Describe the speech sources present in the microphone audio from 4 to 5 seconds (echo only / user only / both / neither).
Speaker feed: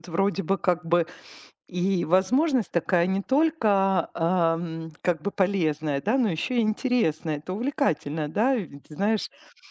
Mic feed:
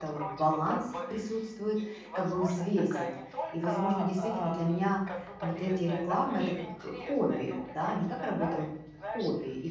both